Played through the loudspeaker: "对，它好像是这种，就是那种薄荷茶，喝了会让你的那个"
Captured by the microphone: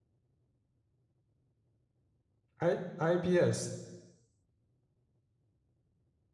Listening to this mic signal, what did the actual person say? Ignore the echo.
，I IBS

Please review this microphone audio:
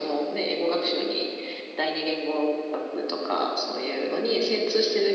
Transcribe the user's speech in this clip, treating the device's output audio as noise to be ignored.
none

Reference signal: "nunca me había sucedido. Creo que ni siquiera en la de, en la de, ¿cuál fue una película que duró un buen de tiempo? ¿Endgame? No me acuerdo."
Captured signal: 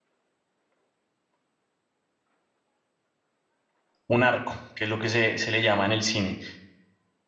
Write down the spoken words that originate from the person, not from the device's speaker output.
un arco, que es lo que se, se le llama en el cine.

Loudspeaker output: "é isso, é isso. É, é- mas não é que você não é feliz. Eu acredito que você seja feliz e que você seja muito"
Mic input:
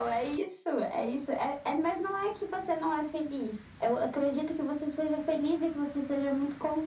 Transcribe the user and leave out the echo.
none

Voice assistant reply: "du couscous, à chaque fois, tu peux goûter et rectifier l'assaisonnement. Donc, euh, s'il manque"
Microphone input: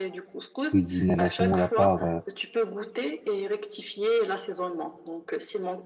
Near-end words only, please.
cuisiner la semoule à part euh,

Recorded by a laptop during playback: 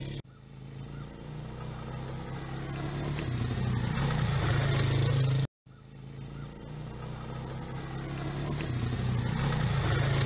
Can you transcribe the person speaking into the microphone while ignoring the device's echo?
none

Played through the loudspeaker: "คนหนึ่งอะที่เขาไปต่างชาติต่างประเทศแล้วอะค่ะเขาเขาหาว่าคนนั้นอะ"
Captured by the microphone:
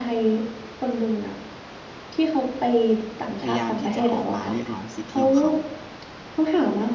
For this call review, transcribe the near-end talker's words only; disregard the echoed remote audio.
พยายามที่จะออกมาเรียกร้องสิทธิของเขา

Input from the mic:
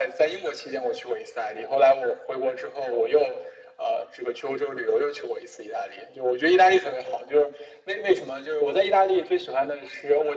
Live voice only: none

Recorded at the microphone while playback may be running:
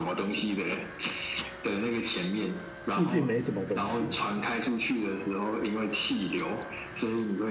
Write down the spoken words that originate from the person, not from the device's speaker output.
附近没什么东西。

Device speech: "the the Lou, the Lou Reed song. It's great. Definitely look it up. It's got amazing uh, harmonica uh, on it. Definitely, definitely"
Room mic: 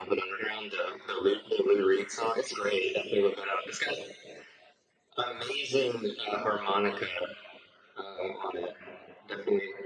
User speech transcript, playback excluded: none

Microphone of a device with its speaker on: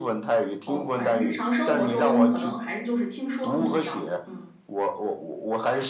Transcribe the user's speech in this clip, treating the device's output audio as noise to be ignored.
哦，反正日常生活中可能还是就是听说更重要，嗯

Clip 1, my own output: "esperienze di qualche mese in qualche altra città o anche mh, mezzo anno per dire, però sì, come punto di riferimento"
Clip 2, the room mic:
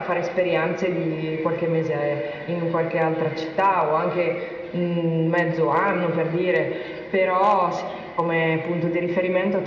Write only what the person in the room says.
none

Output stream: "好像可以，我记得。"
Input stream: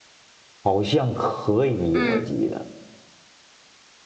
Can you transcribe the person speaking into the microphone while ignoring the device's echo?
嗯，

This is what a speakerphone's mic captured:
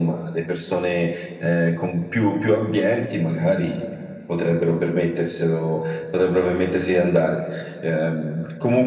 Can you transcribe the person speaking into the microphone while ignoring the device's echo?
none

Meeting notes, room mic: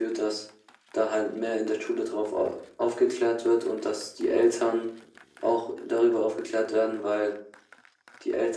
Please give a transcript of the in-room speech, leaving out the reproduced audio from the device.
none

